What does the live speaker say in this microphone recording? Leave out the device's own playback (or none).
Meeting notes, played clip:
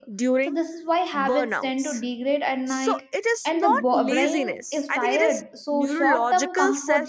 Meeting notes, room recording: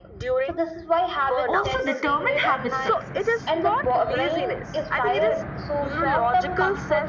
also determine habit success.